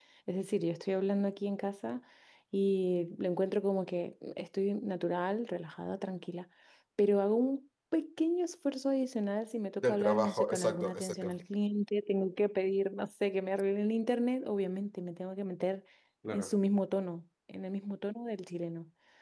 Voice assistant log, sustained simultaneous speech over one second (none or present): present